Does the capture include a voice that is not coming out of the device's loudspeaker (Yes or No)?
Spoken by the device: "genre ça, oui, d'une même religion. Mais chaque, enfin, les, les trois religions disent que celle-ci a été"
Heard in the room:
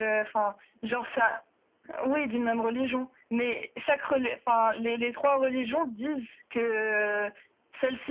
No